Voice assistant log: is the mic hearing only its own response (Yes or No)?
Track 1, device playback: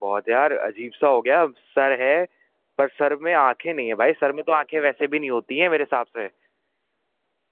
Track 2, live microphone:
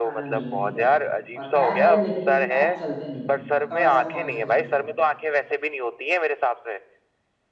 No